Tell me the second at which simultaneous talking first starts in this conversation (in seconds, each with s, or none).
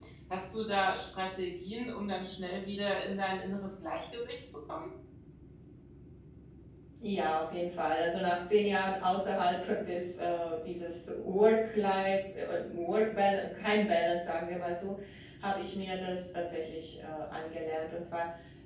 none